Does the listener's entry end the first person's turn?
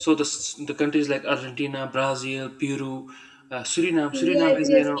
Yes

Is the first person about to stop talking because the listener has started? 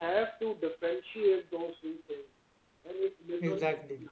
No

